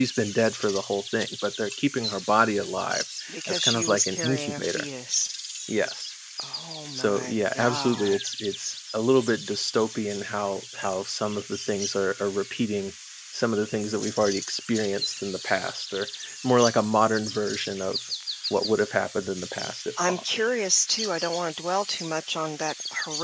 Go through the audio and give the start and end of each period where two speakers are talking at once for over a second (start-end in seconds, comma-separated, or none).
3.3-4.9, 7.0-8.2